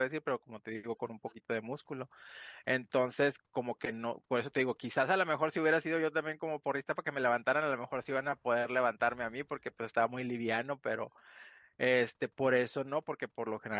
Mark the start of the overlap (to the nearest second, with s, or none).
none